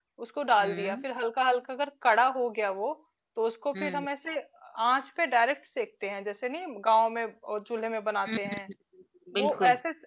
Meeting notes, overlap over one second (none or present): none